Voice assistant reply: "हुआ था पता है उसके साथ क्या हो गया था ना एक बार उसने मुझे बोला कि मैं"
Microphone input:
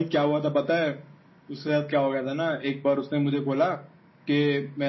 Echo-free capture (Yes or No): No